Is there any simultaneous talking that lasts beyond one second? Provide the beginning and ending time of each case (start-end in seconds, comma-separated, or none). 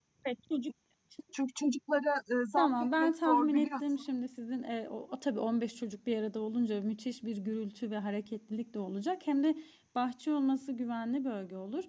2.6-4.0